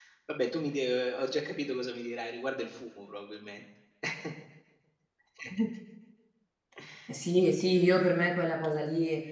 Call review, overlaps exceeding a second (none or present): none